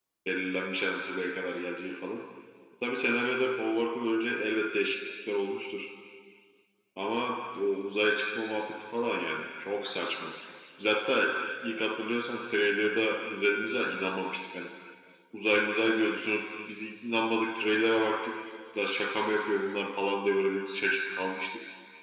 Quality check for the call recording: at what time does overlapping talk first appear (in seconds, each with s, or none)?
none